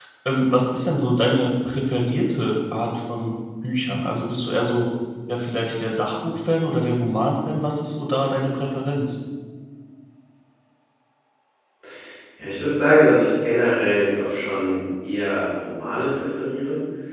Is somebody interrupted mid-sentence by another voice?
No

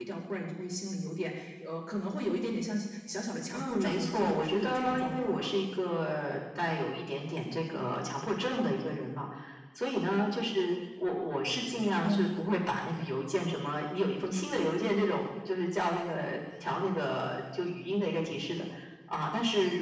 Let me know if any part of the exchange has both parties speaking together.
Yes, from 3.5 s

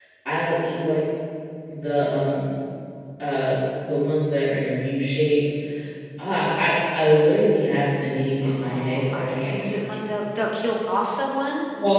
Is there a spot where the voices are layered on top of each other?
Yes, from 8.4 s

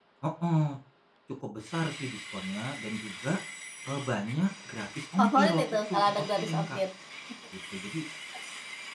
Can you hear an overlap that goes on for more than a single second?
Yes, from 5.2 s

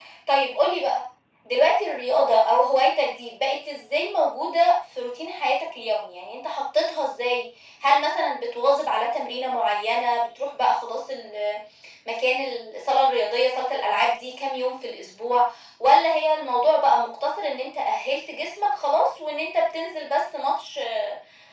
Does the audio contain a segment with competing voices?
No

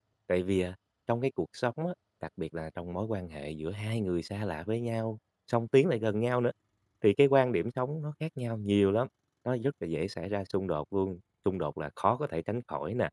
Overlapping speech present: No

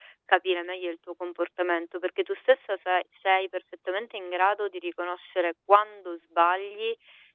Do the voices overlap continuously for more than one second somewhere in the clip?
No

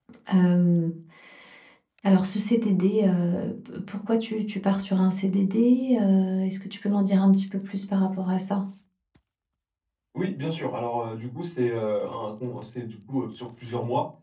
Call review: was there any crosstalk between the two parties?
No

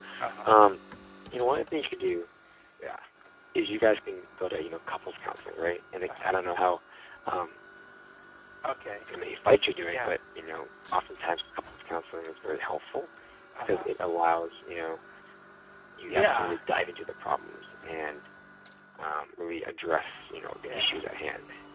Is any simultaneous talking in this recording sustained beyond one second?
No

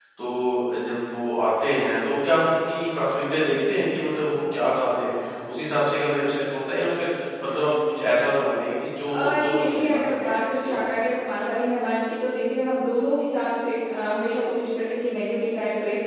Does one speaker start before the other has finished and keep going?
Yes, from 9.1 s

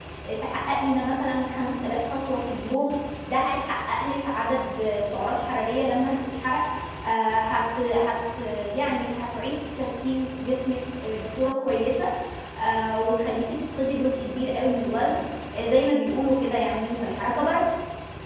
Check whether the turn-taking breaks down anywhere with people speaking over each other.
No

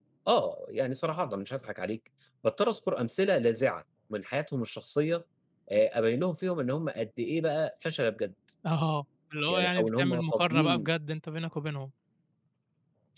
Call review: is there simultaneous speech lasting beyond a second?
Yes, from 9.5 s

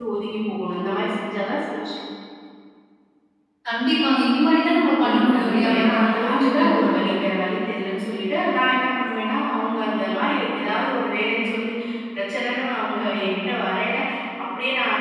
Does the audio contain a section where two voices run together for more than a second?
Yes, from 5.0 s

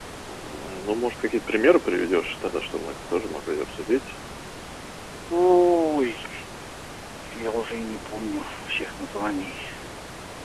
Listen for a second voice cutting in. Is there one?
No

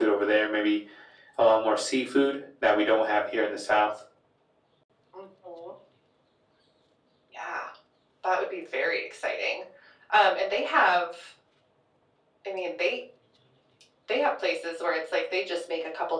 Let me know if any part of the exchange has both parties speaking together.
No

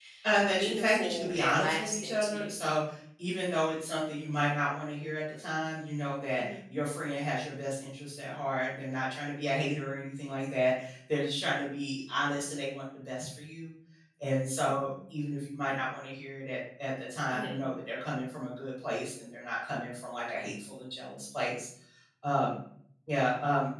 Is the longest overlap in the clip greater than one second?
Yes, from 0.5 s

